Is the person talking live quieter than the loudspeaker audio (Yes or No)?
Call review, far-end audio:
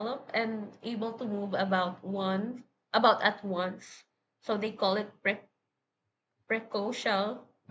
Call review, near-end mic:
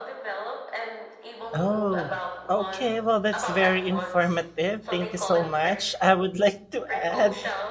No